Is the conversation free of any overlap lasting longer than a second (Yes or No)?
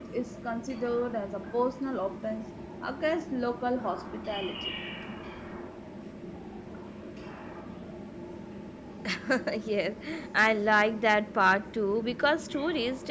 Yes